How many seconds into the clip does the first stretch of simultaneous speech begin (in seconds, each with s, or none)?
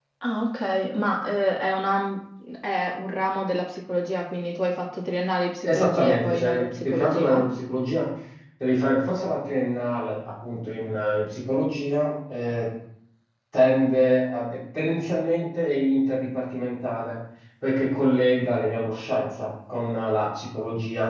5.6 s